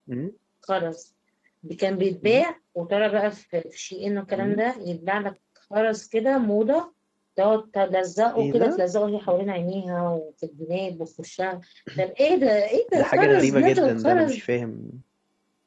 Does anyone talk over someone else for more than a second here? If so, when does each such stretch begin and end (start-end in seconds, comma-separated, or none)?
13.0-14.4